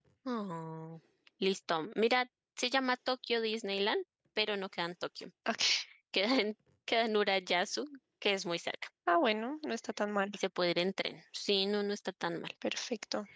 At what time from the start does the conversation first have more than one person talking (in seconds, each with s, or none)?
none